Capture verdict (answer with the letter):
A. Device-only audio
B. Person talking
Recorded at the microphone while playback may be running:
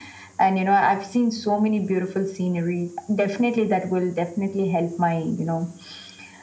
A